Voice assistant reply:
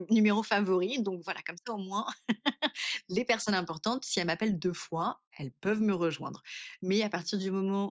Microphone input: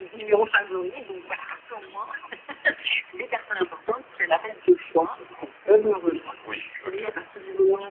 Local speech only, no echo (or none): Oui, OK.